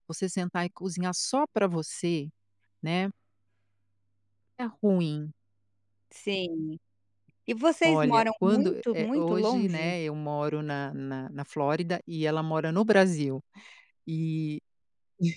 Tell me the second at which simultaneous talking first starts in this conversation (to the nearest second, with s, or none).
8 s